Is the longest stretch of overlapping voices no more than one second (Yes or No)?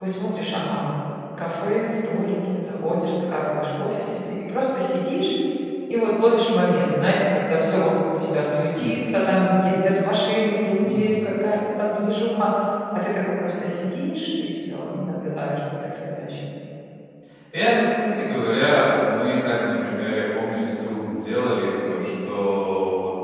Yes